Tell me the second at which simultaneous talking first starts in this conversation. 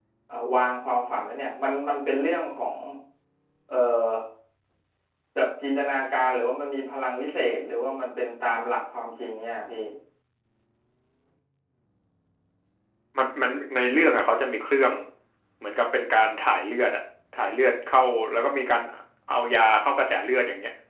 none

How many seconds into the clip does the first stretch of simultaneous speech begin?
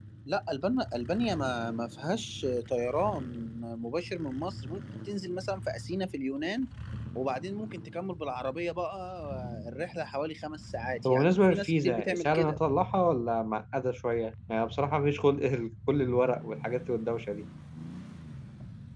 11.1 s

